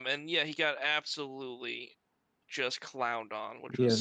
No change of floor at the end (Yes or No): No